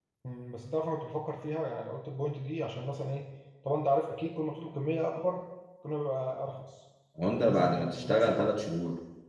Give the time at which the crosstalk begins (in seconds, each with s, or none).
7.2 s